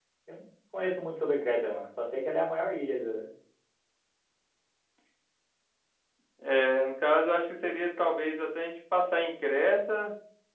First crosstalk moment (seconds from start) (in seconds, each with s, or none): none